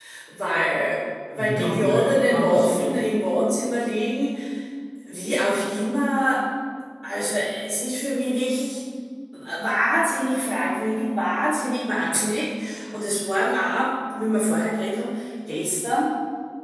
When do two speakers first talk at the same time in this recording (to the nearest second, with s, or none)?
1 s